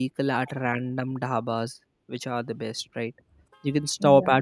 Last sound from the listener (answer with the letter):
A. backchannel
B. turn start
A